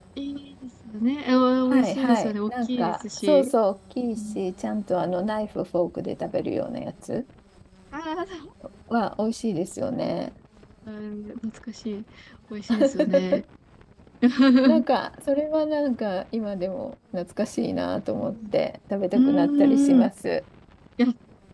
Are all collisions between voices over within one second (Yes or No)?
No